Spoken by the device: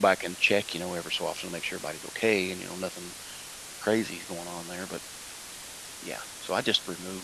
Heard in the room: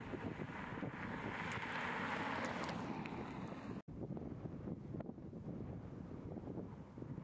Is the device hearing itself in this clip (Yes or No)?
No